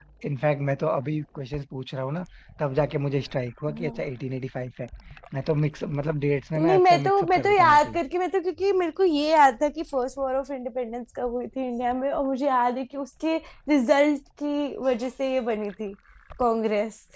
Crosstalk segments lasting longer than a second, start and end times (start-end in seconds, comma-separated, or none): 6.6-8.0